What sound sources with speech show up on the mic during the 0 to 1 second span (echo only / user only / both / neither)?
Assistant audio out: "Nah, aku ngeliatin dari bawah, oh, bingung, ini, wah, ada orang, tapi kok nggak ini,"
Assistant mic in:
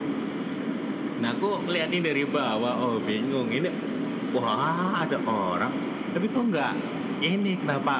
neither